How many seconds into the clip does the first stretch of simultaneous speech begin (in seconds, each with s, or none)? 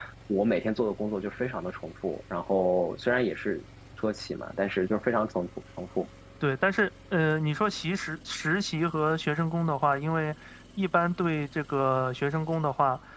none